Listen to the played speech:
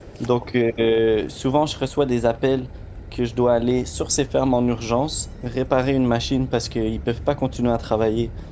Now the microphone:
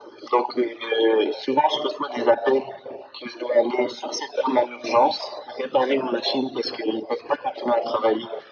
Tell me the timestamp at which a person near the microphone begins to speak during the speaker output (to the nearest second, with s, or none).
none